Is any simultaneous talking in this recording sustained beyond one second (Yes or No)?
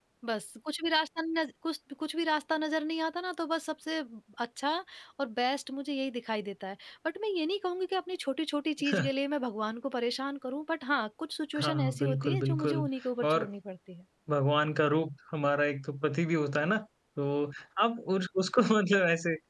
Yes